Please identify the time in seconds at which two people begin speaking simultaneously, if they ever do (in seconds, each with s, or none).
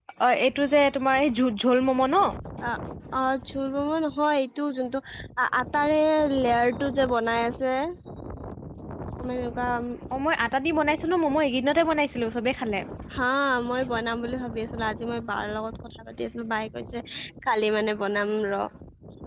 none